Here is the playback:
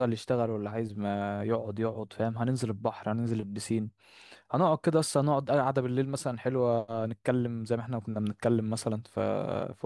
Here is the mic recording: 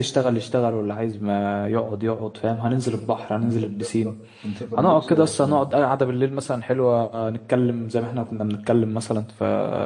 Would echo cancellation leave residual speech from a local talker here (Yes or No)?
Yes